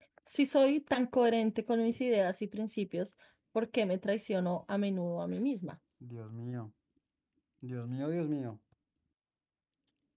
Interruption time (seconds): none

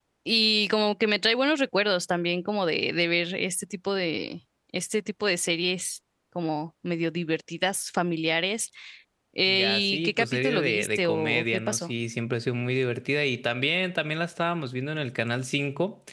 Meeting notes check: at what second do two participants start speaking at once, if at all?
9.5 s

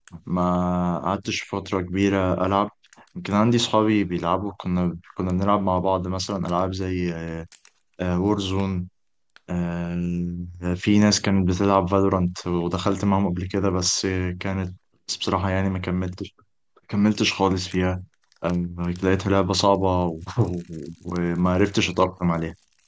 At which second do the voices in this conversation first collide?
none

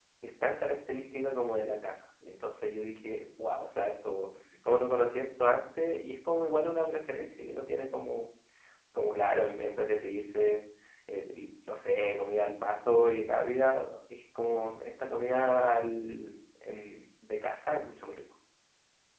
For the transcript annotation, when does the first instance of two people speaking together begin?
none

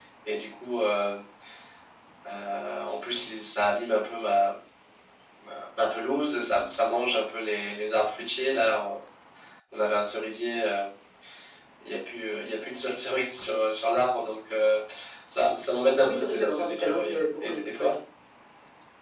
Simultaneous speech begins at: 16.0 s

